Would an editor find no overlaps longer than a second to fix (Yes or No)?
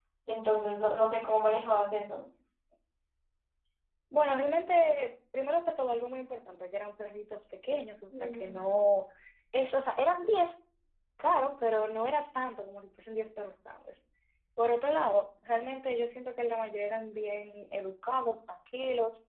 Yes